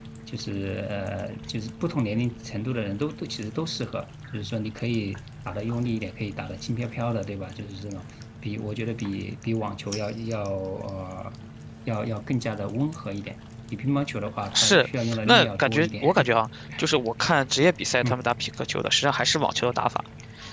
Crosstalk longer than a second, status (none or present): present